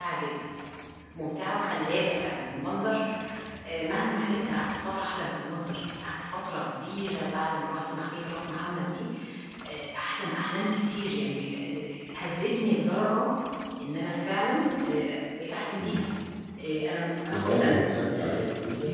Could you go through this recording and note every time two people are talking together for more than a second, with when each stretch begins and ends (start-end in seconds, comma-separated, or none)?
none